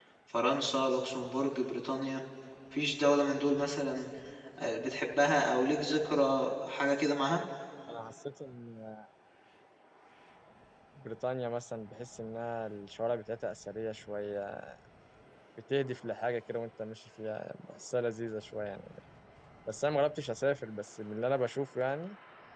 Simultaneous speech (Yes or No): No